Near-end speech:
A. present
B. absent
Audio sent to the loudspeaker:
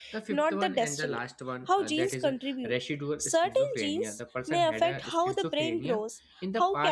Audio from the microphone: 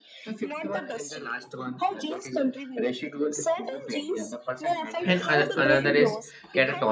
A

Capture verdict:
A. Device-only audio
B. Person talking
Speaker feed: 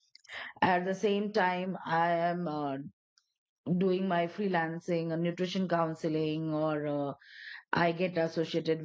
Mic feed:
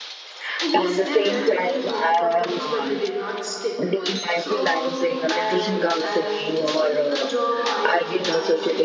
B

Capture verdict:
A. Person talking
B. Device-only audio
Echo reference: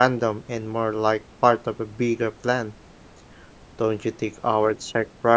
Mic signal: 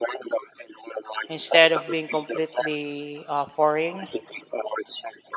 A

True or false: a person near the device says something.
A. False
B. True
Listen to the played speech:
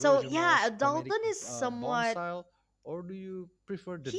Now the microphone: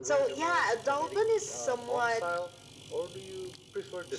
A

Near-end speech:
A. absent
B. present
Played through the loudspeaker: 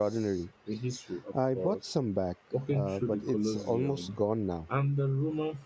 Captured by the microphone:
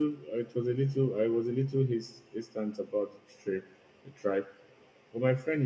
B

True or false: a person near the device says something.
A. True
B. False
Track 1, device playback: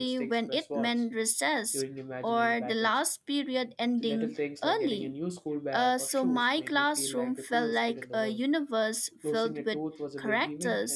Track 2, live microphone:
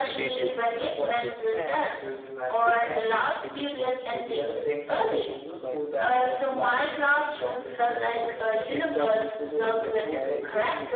A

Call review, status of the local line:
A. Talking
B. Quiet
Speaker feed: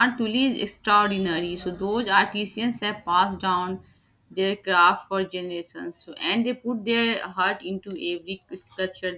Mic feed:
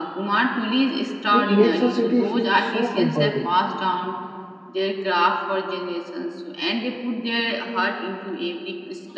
A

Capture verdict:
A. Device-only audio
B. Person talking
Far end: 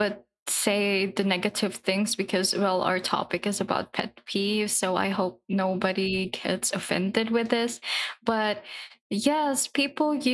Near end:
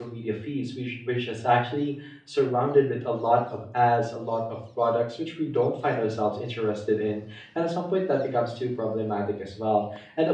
B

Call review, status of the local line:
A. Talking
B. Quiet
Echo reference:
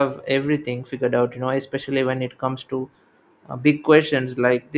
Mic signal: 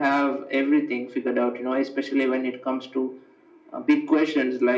B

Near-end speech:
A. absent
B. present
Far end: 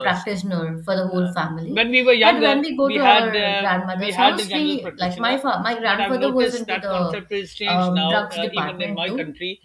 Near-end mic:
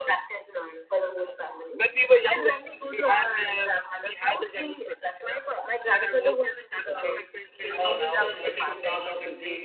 B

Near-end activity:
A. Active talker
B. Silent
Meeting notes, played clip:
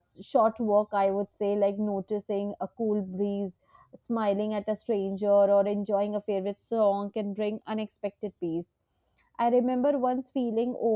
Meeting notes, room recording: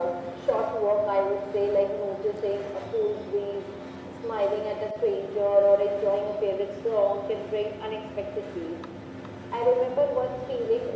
B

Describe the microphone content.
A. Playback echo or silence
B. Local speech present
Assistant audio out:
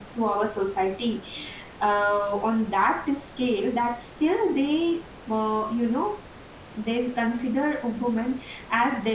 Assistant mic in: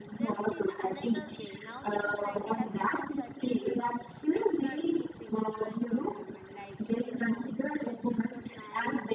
B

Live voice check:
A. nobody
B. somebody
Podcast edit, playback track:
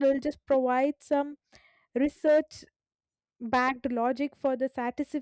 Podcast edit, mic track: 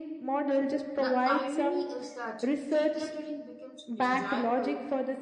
B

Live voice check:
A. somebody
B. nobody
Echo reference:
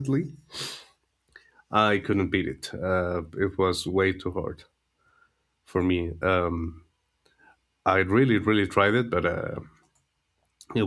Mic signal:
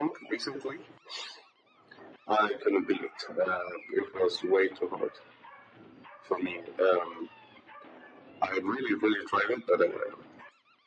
B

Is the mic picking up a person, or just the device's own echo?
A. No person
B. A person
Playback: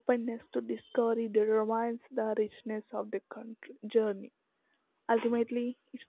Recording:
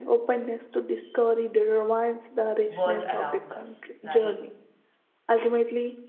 B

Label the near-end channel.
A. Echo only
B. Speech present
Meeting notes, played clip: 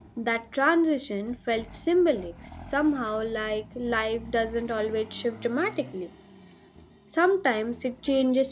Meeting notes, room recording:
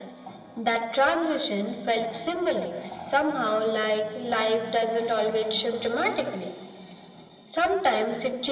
A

